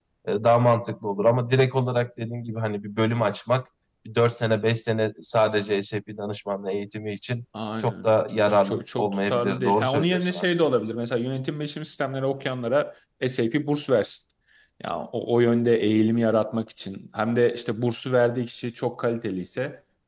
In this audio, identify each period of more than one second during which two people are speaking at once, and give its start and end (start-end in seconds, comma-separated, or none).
7.8-10.6